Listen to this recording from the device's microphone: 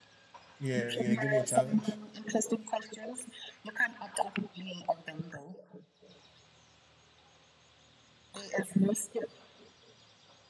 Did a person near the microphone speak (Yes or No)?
Yes